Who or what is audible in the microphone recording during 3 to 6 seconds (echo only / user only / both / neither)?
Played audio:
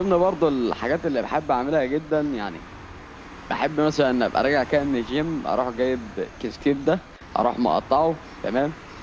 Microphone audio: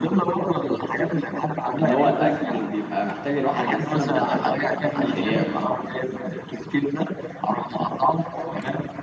both